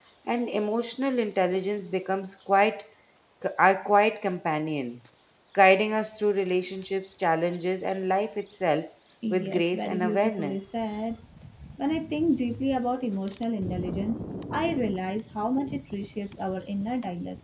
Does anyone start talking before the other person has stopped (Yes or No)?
Yes